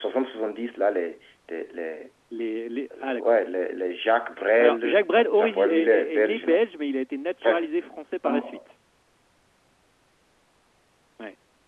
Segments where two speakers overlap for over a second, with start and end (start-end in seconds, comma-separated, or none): 4.6-6.6